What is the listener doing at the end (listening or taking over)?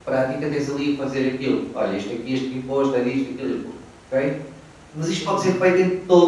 listening